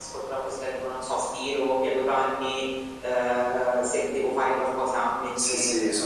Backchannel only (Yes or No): No